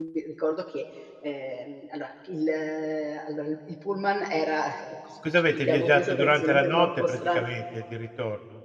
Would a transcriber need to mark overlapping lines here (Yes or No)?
Yes